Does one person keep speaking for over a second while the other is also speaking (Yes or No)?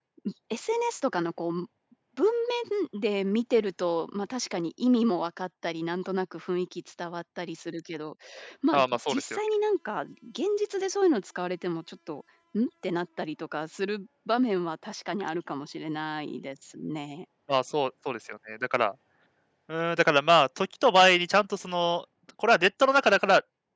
No